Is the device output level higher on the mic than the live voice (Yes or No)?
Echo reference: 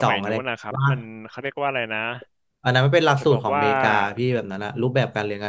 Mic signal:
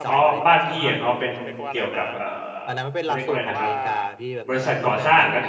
No